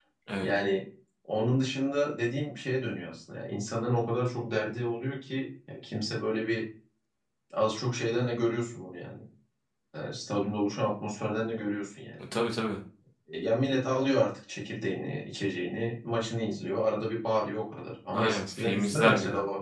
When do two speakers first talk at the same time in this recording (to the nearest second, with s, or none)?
18 s